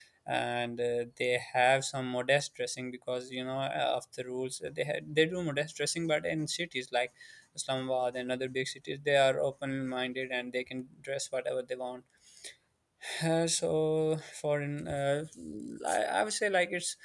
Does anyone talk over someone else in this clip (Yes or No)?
No